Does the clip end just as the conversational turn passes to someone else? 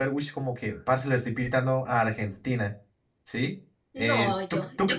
Yes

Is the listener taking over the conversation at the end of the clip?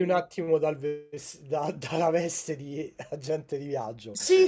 Yes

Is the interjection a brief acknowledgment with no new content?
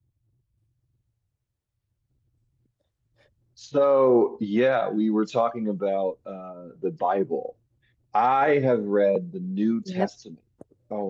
Yes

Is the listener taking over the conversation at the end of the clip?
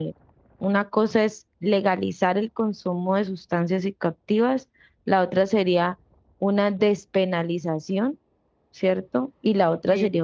No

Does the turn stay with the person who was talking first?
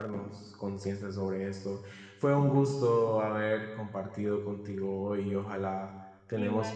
Yes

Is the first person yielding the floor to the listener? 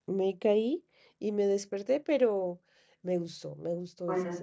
Yes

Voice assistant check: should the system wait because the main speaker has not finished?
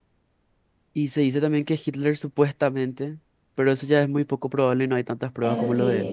No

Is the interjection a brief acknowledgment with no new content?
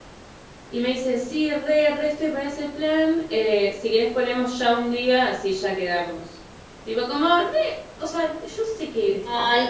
No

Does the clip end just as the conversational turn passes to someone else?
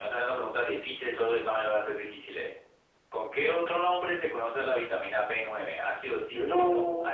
No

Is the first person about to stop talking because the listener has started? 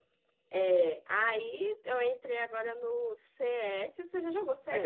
Yes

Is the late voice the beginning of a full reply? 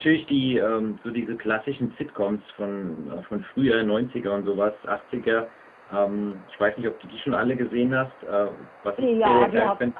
Yes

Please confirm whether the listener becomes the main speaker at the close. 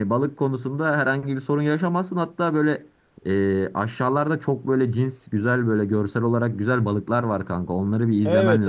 Yes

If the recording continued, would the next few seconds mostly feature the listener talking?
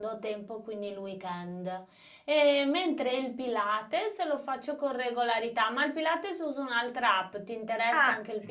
Yes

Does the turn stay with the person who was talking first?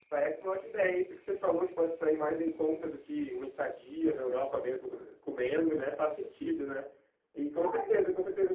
Yes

